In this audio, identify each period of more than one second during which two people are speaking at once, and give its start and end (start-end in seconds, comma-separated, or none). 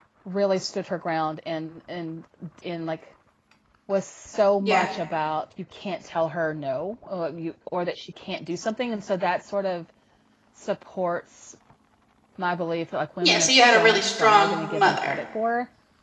13.2-15.2